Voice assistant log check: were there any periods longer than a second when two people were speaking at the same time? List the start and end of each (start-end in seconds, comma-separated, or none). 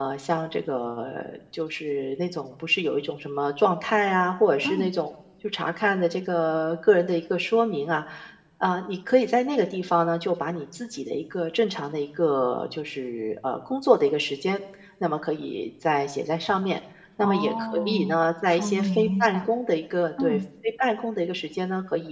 17.2-19.5